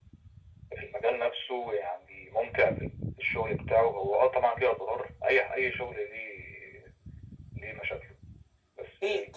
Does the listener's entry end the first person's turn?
No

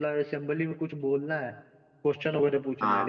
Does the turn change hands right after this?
No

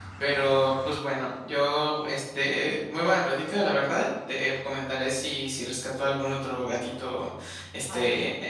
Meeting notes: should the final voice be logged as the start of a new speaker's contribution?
No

